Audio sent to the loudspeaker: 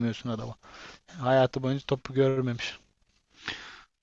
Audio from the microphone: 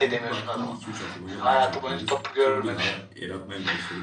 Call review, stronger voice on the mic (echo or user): echo